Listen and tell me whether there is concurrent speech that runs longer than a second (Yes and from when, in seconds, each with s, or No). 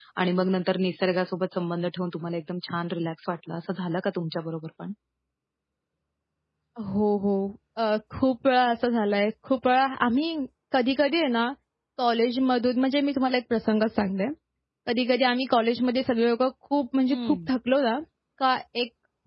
No